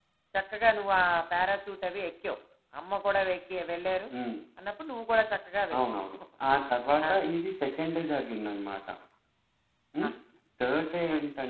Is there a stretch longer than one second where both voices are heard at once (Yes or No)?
No